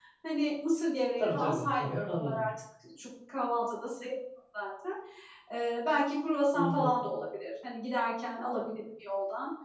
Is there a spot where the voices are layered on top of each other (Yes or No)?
Yes